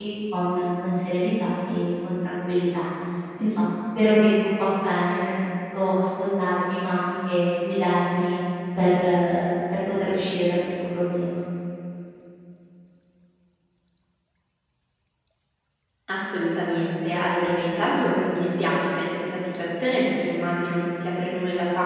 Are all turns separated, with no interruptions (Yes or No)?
Yes